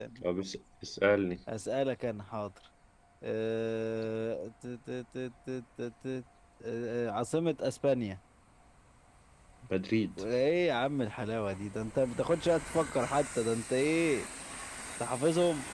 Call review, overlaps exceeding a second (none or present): none